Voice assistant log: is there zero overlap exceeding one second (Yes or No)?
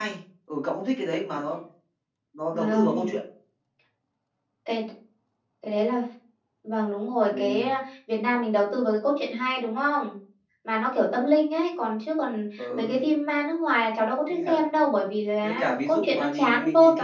No